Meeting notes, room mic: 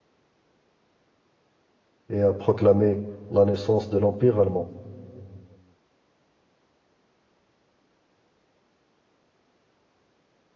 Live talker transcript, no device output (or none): et a proclamé la naissance de l'Empire allemand.